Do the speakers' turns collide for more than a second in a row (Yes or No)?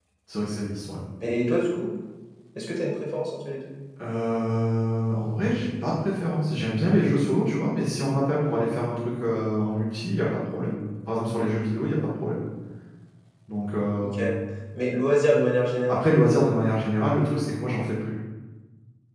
No